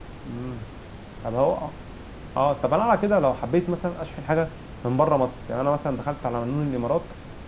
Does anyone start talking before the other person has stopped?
No

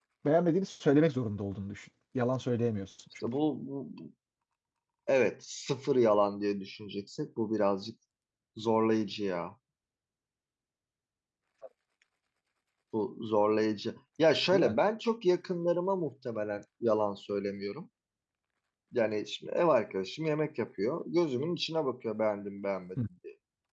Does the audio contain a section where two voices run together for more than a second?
No

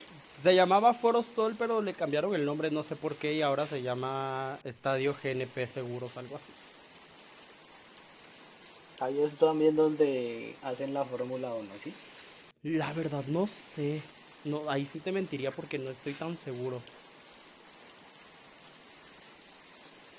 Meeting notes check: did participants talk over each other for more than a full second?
No

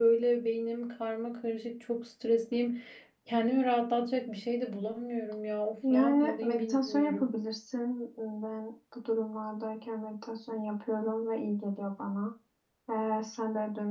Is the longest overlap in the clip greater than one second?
Yes, from 5.8 s

